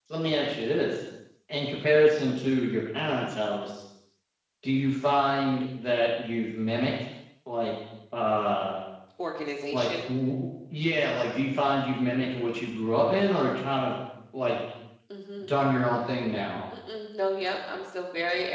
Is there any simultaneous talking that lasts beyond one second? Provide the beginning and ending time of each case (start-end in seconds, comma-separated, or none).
none